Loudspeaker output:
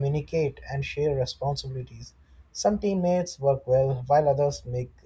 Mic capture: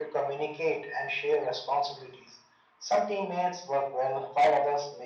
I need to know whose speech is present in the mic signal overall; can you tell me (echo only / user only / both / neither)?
echo only